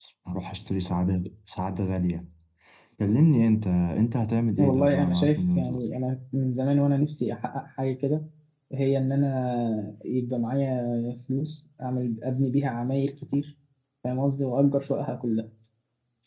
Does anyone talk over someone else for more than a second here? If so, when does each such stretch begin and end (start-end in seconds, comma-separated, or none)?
4.6-5.8